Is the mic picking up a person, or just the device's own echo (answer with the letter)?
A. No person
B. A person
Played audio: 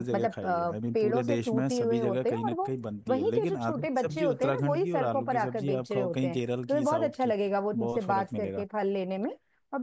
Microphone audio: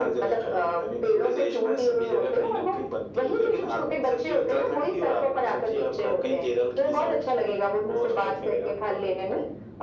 A